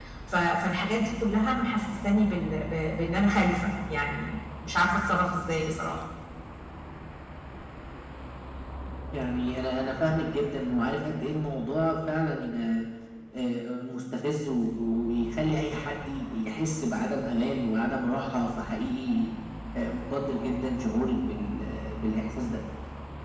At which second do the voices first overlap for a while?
none

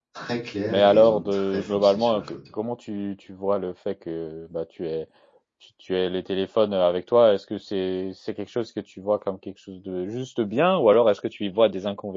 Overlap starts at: 1 s

